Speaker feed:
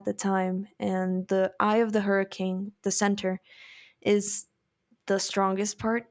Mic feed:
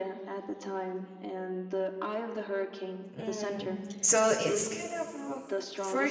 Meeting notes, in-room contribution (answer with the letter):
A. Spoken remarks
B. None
A